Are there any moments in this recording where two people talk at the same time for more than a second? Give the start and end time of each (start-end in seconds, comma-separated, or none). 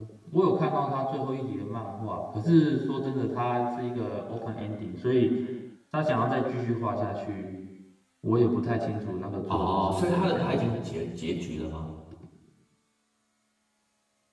9.5-10.8